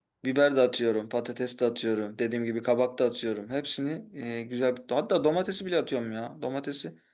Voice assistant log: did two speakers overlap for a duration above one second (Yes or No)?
No